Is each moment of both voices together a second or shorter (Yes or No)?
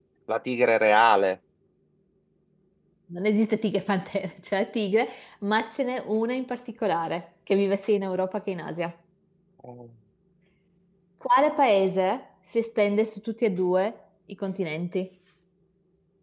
Yes